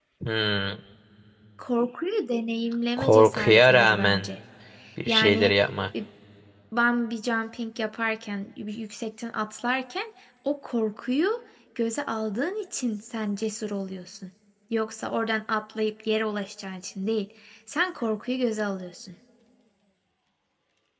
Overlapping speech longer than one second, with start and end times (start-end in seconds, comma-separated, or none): 3.0-4.3